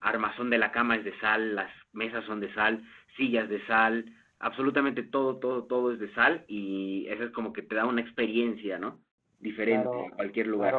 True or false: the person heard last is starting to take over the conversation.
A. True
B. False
A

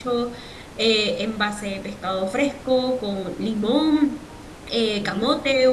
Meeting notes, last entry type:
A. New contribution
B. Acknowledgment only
B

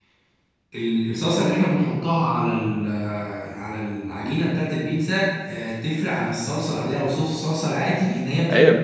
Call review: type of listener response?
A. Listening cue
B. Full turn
B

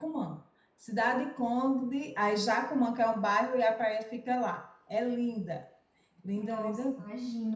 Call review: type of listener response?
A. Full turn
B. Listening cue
A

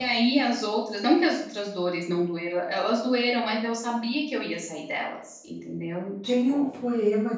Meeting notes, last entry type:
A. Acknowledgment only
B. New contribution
B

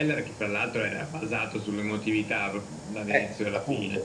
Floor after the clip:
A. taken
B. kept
A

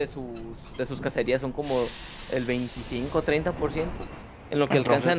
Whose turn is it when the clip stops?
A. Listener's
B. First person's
B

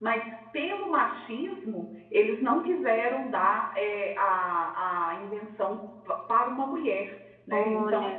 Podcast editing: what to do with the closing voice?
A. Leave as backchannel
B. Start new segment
B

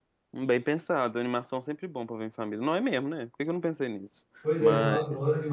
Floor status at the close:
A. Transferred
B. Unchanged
A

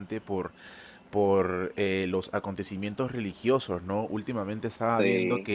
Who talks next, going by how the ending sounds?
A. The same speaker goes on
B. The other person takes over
A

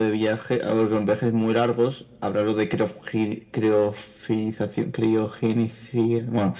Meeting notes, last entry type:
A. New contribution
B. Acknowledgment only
A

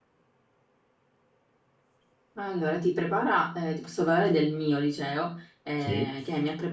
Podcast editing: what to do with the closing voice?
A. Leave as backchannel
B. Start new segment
A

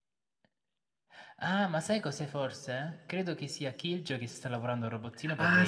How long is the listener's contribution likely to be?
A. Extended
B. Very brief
A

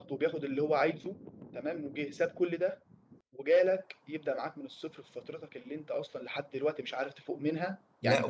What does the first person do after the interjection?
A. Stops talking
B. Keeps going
B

